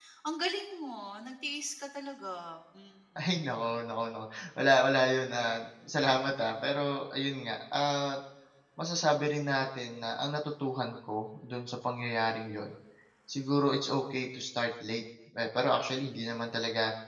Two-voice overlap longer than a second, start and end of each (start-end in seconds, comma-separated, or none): none